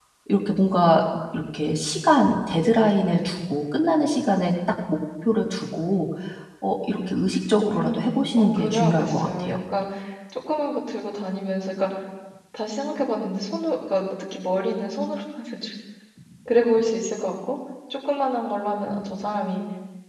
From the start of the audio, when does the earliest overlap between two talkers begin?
7.7 s

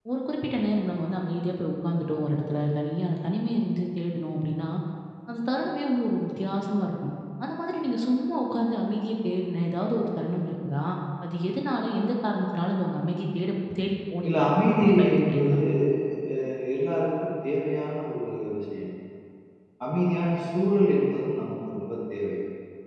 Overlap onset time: 14.2 s

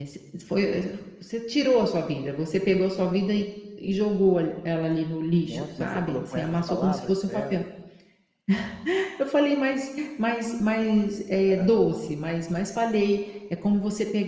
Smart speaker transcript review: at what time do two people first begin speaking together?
5.5 s

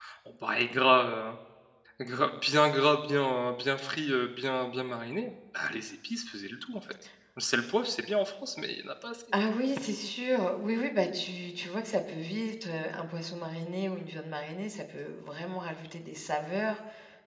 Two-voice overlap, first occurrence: none

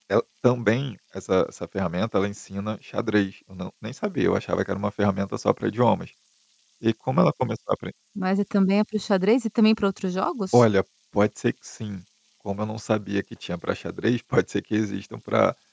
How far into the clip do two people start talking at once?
none

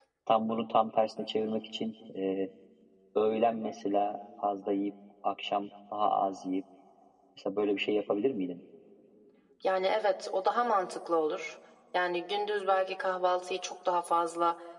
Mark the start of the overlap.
none

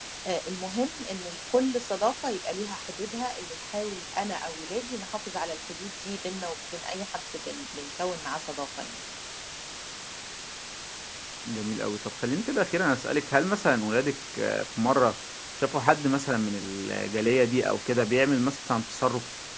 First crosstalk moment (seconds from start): none

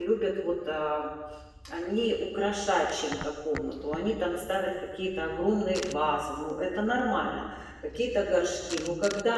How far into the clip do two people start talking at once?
none

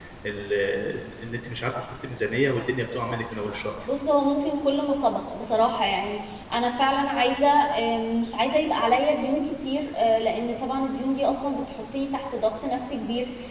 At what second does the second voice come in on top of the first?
none

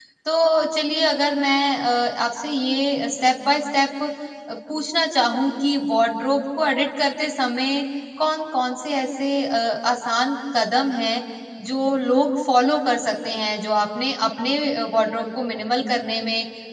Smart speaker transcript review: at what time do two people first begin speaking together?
none

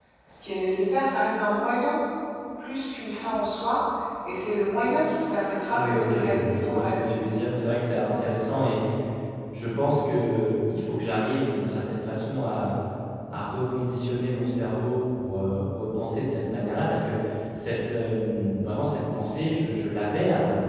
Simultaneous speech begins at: 5.7 s

